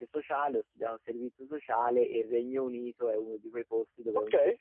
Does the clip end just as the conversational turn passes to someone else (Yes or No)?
No